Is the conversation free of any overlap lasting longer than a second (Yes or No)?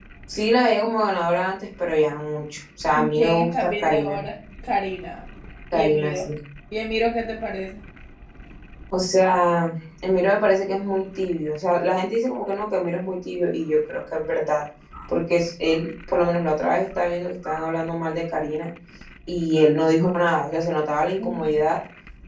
No